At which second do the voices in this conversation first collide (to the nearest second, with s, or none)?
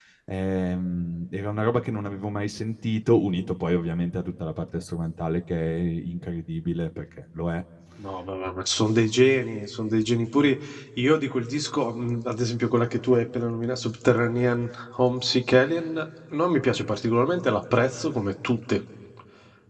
none